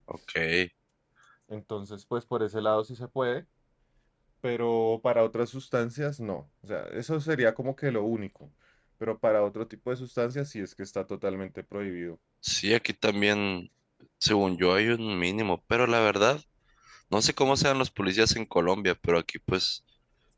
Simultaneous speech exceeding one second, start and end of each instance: none

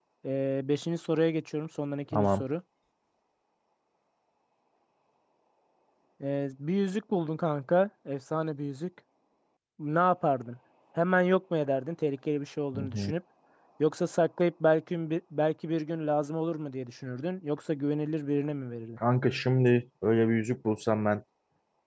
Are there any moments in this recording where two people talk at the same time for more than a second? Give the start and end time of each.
none

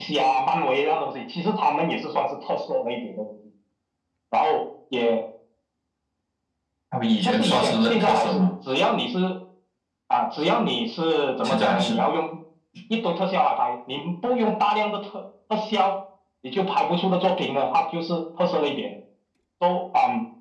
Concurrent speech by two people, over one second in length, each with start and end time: 7.2-8.5

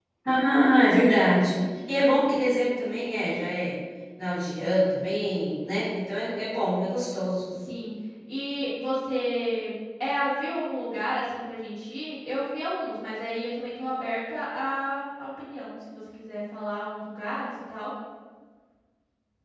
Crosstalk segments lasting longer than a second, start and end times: none

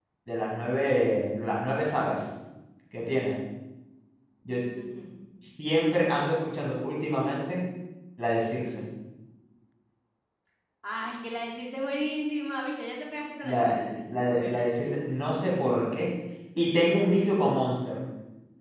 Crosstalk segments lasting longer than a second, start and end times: 13.4-14.7

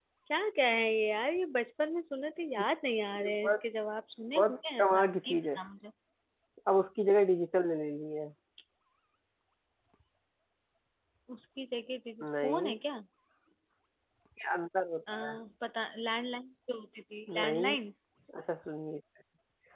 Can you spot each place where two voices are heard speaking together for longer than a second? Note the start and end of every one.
4.3-5.6

